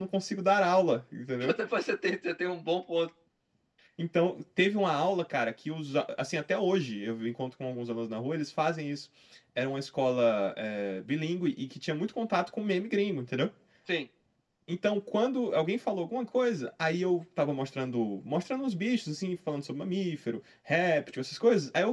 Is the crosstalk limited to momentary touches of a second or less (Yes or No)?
Yes